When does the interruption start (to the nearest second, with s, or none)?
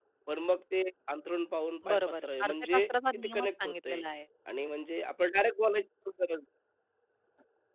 2 s